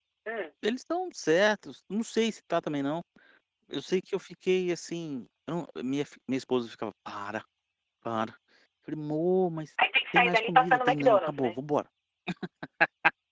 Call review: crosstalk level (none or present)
present